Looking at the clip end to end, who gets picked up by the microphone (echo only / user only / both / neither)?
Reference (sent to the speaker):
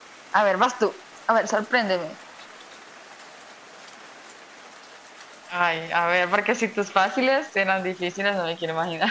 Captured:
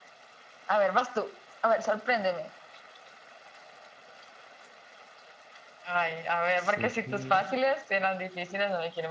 both